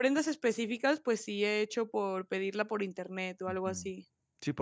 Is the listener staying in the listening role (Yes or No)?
No